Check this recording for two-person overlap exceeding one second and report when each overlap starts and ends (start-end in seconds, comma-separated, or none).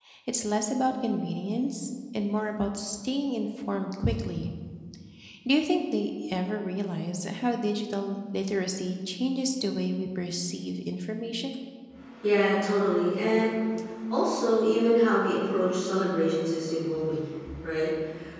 none